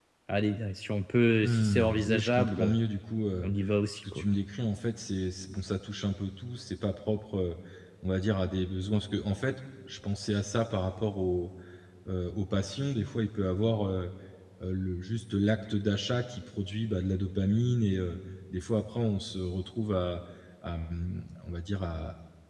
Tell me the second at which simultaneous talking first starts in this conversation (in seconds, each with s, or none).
1.4 s